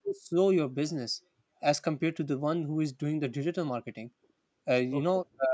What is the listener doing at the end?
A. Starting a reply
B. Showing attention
B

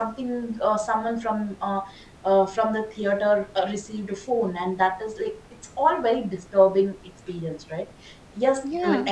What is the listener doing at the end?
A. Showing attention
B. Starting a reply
A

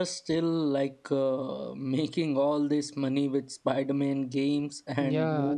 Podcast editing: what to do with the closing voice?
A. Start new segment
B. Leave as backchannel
A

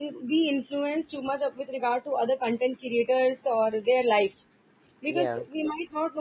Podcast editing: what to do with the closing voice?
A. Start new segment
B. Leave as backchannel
B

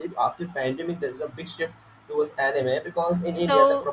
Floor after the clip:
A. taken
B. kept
B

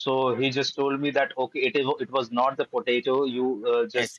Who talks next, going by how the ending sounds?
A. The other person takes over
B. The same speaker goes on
B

